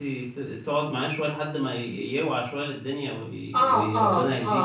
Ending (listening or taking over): taking over